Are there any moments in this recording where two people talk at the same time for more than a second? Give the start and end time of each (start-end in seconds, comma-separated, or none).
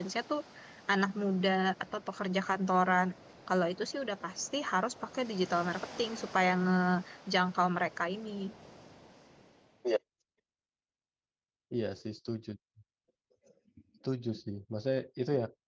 none